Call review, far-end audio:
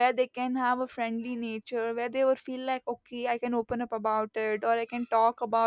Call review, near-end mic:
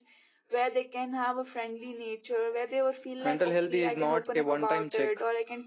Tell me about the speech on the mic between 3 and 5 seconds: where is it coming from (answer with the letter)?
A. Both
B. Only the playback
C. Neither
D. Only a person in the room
A